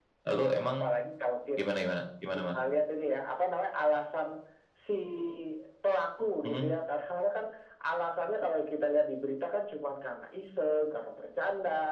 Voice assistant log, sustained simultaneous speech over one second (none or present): none